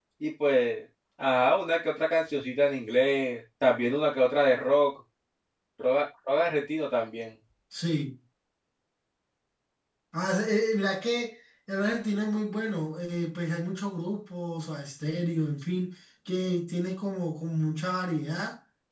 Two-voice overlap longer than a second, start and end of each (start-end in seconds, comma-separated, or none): none